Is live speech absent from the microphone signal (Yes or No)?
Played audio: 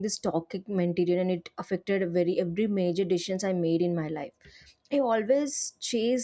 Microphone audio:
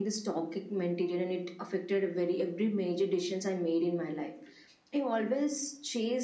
Yes